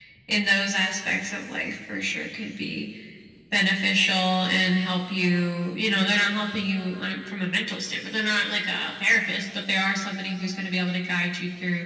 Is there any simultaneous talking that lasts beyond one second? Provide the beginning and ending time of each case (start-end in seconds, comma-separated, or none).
none